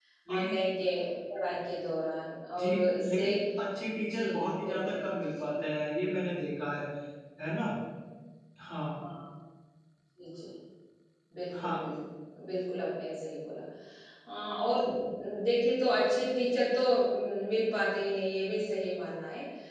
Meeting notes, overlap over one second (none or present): present